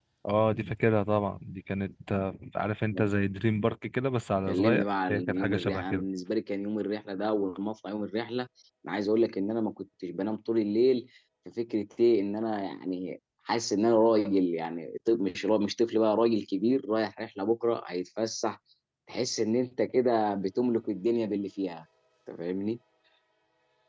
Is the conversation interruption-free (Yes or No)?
No